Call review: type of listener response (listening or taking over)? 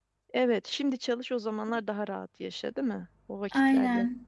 taking over